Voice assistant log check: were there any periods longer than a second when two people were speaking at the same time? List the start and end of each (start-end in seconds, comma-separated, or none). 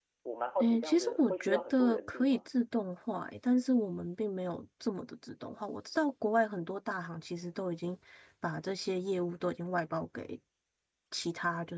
0.6-2.5